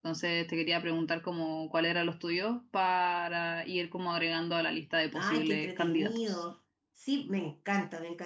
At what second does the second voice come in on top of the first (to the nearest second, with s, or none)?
5 s